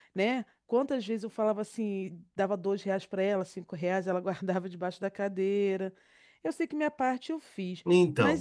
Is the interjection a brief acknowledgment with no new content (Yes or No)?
No